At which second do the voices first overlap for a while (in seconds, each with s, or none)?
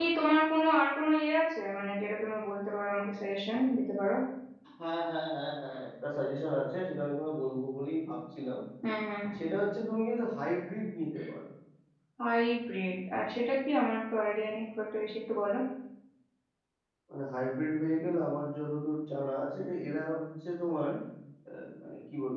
none